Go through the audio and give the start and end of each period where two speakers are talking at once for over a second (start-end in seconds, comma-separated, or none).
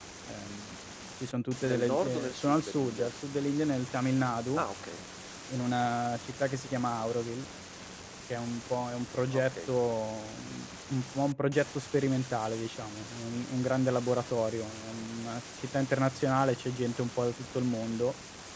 1.7-3.1